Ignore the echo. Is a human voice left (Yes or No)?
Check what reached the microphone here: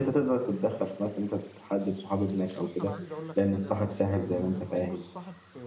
Yes